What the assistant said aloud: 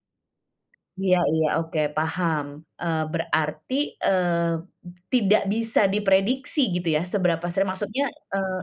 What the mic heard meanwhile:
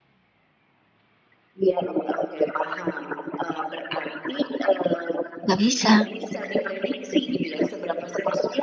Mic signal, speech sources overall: both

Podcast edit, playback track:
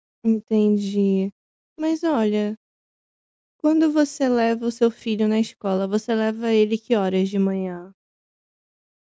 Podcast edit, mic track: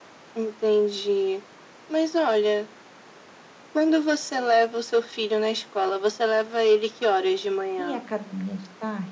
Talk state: both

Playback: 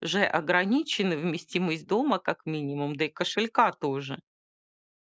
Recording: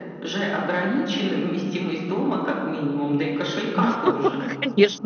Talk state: both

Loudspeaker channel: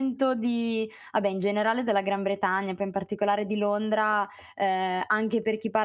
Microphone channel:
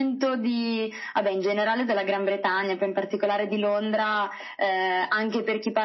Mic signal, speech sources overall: echo only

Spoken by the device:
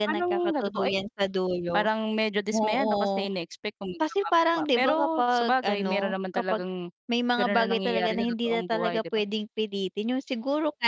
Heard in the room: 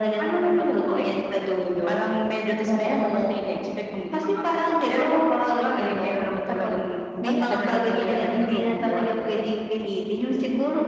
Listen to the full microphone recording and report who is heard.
both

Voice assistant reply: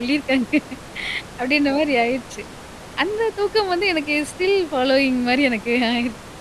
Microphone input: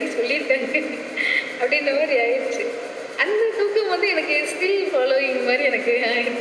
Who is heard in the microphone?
echo only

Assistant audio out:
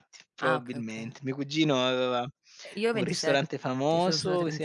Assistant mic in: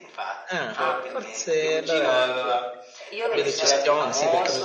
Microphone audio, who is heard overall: both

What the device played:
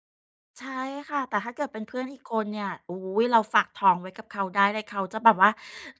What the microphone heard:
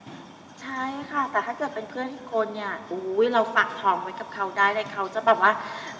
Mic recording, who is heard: echo only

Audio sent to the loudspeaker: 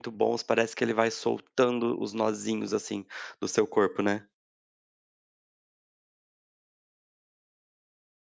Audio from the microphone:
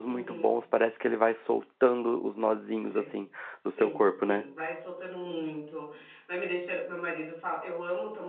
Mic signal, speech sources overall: both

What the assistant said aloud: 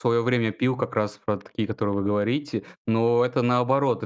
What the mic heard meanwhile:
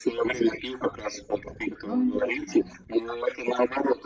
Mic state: both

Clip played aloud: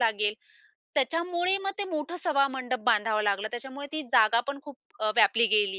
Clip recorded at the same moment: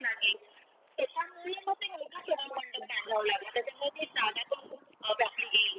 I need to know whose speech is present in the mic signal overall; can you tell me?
echo only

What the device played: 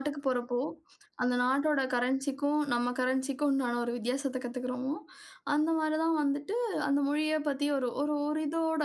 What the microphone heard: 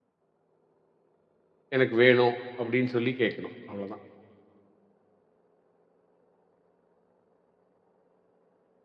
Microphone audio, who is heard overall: user only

